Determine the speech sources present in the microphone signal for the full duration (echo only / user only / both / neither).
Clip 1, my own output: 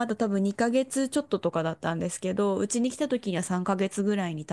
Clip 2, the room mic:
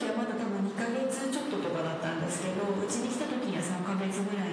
echo only